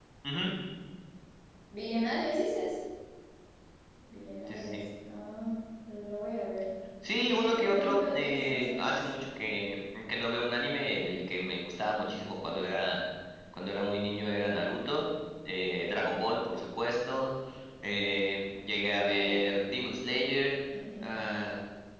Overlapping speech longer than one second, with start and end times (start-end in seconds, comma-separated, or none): 7.1-9.0